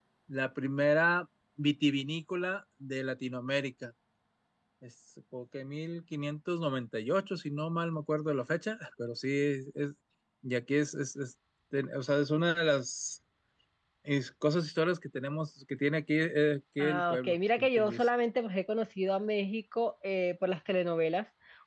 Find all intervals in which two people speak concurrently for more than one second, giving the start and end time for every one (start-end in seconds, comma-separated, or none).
16.8-18.1